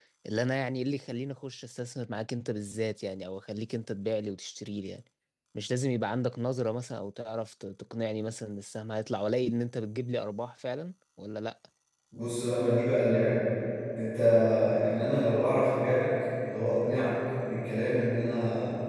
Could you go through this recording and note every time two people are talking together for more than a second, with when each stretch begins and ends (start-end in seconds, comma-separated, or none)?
none